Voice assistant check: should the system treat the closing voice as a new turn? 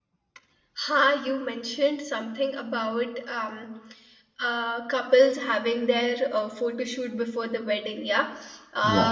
No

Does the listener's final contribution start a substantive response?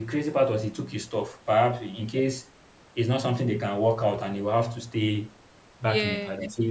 No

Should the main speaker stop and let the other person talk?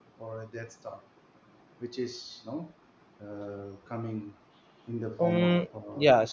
Yes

